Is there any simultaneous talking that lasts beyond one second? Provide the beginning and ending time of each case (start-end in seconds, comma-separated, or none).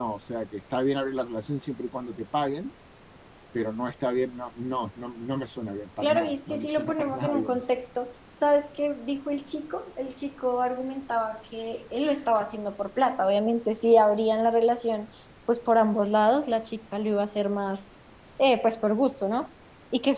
6.0-7.6